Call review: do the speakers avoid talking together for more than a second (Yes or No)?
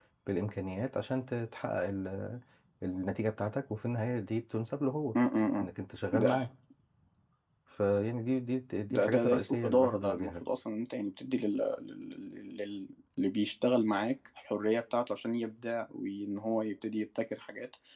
No